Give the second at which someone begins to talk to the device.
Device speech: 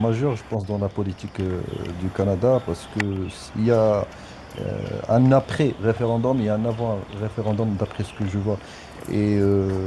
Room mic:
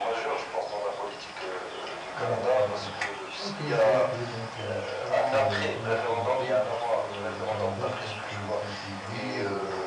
2.2 s

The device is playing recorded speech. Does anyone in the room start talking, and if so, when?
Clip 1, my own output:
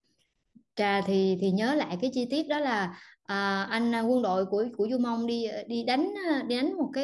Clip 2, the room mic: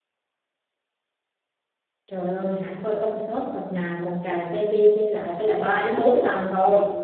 2.1 s

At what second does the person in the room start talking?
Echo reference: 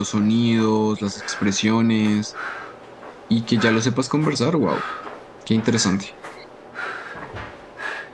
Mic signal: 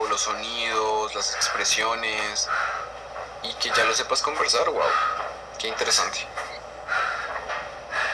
none

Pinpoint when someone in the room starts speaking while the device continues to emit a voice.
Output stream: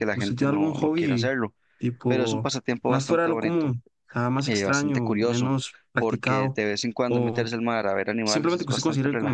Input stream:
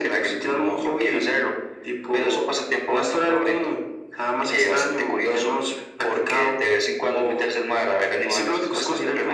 none

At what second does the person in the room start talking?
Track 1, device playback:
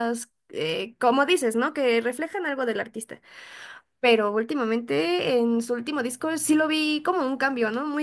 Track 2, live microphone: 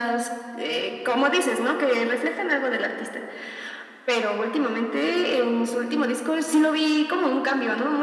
none

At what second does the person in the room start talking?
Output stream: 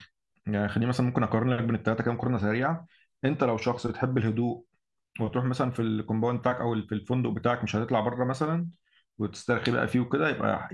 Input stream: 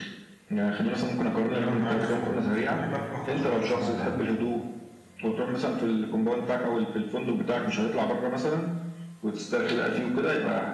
1.5 s

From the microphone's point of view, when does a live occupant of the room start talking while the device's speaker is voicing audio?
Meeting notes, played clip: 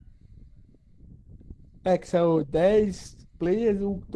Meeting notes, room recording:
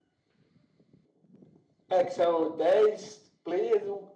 none

